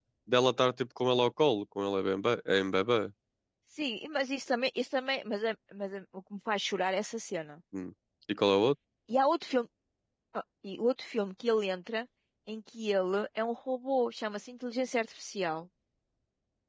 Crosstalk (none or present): none